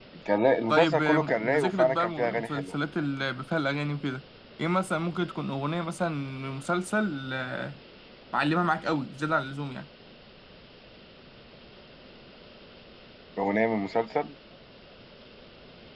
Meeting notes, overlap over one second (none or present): present